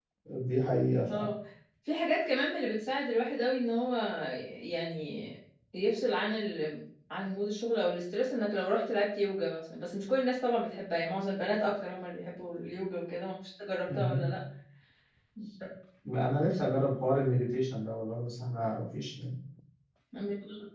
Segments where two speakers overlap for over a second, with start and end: none

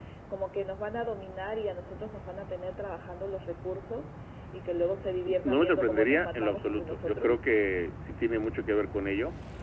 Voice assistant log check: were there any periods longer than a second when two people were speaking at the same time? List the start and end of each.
5.4-7.4

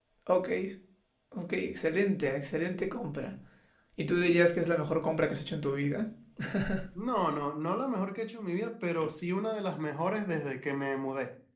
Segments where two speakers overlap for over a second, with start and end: none

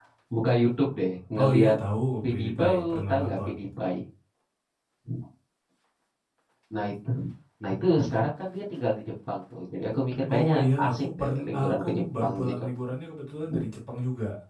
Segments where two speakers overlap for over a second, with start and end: 2.2-3.5, 10.4-12.6

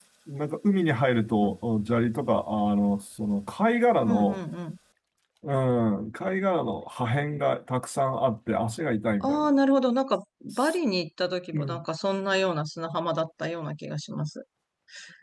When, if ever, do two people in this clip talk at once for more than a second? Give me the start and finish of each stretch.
none

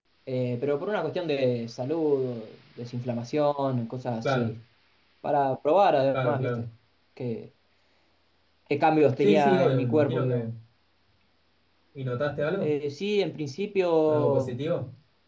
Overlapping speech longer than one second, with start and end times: 9.2-10.5

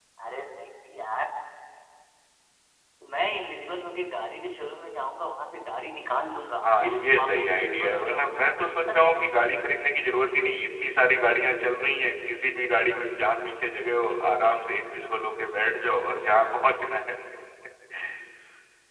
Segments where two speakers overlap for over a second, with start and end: 6.6-8.5

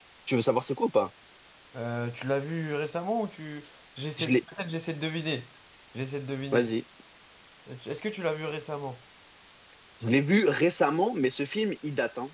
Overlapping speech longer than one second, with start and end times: none

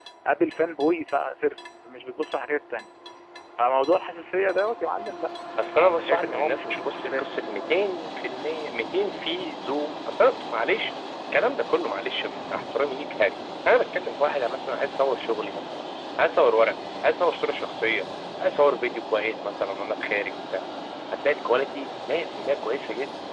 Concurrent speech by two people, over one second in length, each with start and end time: 5.8-7.3

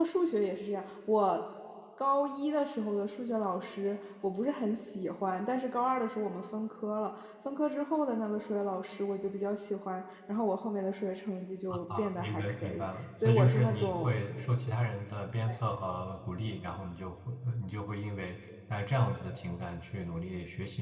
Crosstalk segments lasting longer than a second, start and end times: 11.7-14.1

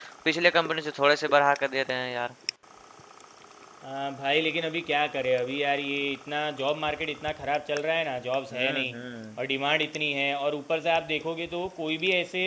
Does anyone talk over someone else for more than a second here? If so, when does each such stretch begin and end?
none

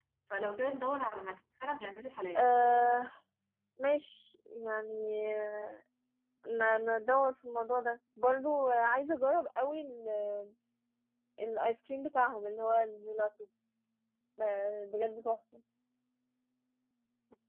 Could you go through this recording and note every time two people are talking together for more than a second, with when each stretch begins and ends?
none

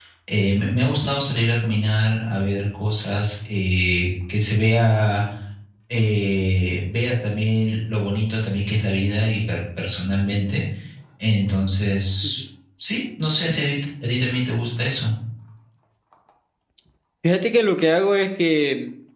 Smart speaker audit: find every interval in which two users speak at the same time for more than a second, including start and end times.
none

